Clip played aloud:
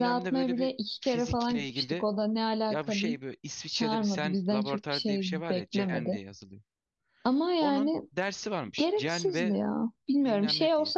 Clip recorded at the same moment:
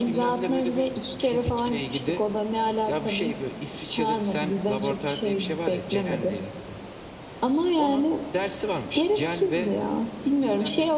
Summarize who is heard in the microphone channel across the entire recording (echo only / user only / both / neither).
echo only